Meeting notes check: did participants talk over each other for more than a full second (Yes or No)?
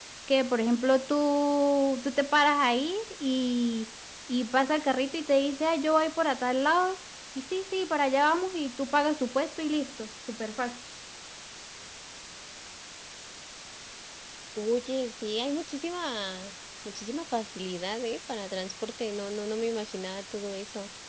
No